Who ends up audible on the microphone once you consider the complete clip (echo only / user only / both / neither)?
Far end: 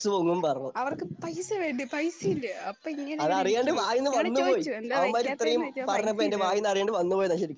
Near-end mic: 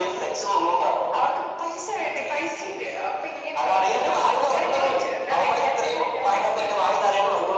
echo only